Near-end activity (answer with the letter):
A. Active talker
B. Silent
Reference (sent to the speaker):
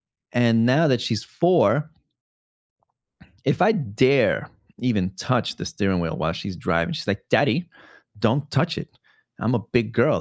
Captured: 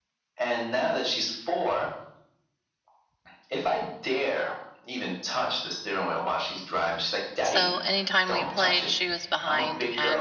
A